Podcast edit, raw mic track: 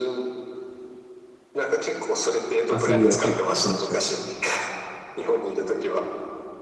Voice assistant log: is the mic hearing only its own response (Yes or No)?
No